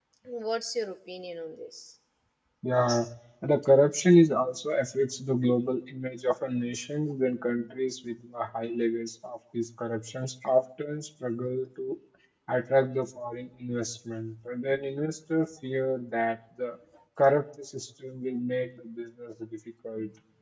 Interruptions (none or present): none